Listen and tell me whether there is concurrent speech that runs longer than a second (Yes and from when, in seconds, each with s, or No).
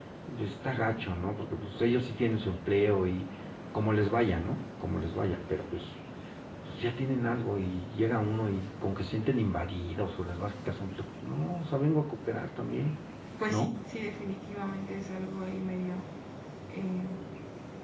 No